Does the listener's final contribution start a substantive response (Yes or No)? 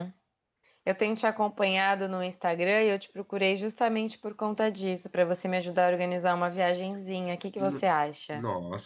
Yes